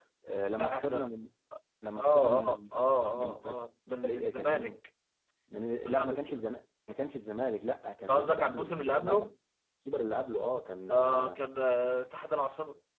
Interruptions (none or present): present